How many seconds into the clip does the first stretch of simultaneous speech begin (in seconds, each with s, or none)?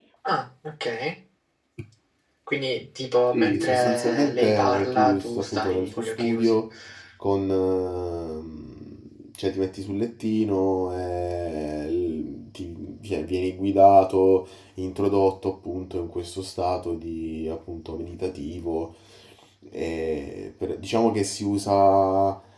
3.3 s